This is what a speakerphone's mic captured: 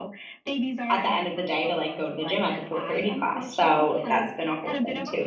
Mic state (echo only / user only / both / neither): both